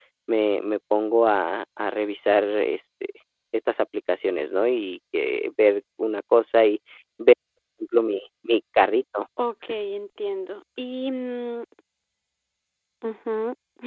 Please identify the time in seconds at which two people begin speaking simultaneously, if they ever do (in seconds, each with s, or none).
none